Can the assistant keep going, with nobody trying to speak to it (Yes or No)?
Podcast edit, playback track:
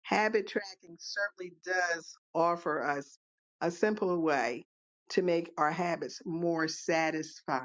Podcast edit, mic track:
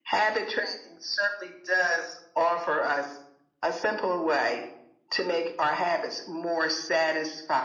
Yes